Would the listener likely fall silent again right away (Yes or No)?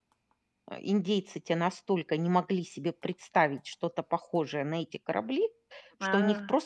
Yes